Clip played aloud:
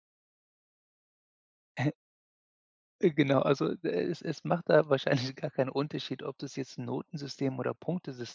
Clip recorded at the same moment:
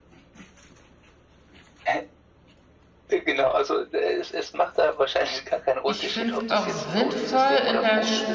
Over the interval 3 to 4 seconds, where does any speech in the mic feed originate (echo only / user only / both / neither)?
echo only